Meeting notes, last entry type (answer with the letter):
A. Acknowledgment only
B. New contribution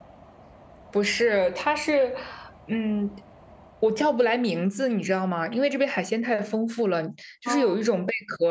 A